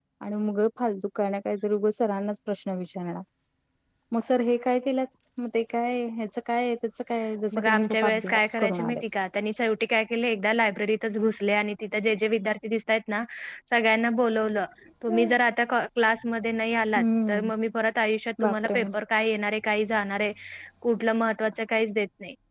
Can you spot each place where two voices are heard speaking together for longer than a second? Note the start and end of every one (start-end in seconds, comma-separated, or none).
7.5-9.0